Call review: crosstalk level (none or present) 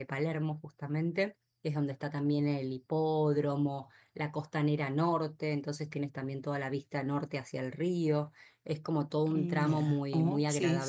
present